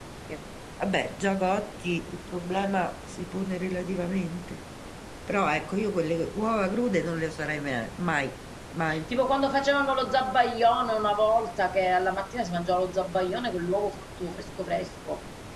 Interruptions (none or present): none